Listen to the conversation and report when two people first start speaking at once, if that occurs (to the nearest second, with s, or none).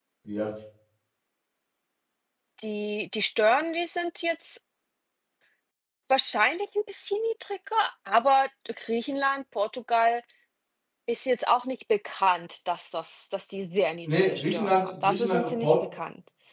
14 s